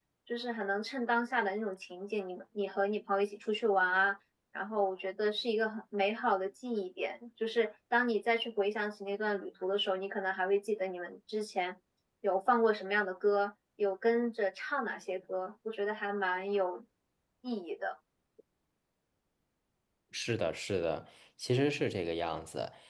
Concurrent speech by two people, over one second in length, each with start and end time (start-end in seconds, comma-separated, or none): none